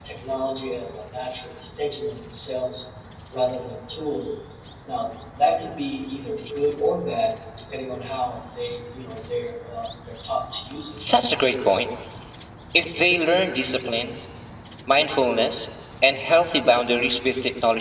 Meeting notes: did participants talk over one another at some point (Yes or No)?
No